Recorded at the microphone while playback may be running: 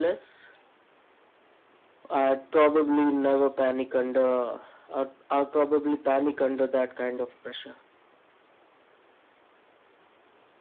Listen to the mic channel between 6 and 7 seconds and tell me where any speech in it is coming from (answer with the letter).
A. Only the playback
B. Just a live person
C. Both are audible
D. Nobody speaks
A